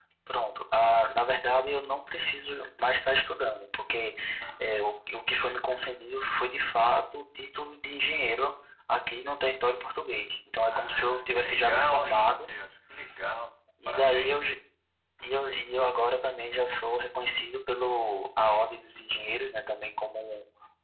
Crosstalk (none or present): present